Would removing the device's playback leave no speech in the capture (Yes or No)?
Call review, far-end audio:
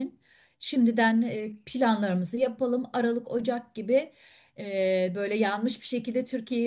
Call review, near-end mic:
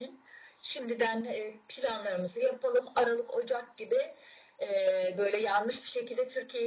Yes